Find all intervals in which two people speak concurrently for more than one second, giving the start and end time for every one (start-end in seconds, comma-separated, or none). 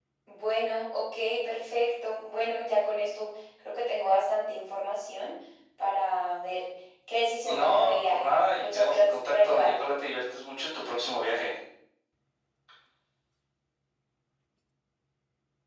7.4-9.9